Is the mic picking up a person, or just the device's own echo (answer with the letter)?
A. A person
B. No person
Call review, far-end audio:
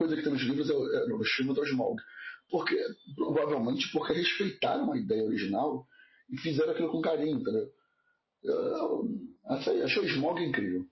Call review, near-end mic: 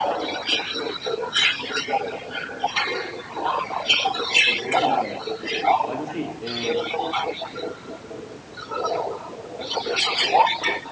A